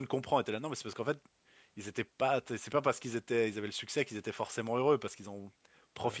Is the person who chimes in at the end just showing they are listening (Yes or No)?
Yes